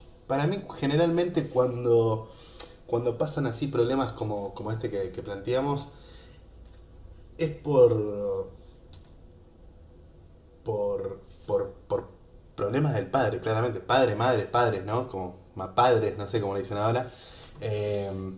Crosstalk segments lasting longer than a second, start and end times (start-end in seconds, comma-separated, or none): none